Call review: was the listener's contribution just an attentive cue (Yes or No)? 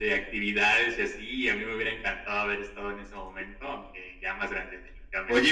No